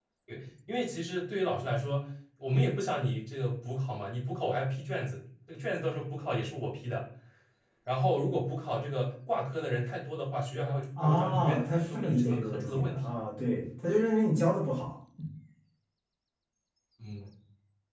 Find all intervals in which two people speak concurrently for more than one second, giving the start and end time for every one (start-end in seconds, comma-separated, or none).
11.0-13.2